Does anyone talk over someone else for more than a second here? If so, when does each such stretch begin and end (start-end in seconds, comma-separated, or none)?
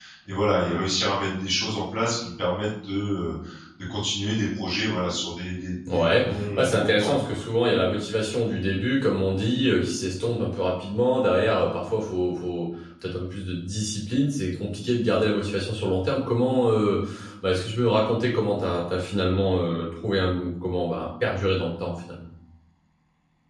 5.9-7.4